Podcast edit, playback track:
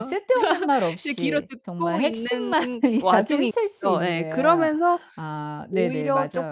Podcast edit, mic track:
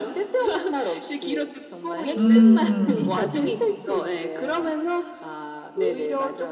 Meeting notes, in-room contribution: present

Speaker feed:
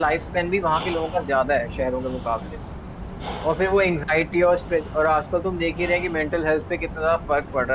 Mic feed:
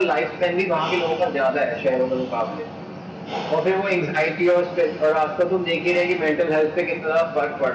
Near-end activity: none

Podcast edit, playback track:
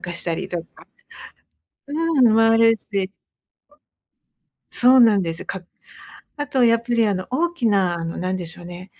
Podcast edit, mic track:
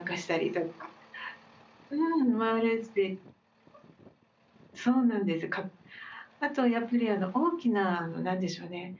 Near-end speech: none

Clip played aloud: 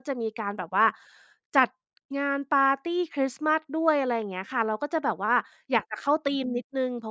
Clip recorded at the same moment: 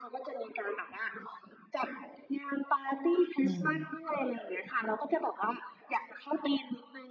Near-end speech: present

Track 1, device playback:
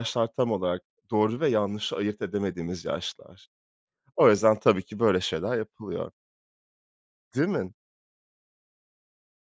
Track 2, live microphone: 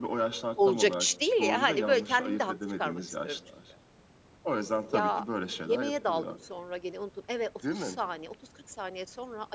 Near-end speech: present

